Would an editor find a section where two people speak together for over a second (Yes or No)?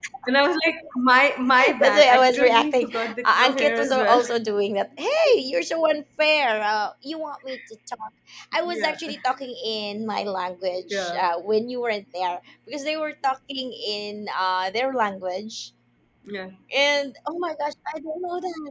Yes